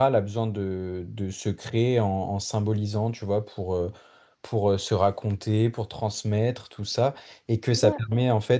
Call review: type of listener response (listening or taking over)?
listening